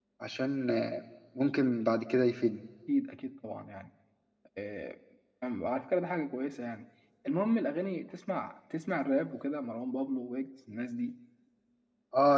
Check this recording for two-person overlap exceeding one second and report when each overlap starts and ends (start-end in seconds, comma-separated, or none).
none